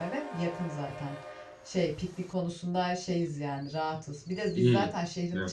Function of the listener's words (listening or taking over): listening